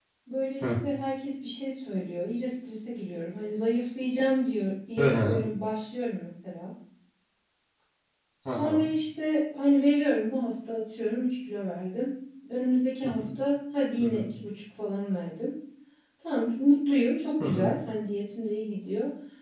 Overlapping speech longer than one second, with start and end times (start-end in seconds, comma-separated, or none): none